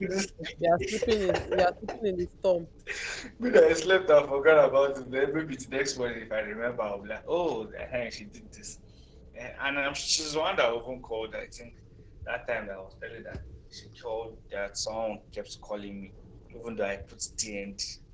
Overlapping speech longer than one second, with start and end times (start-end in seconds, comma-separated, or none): 0.6-2.0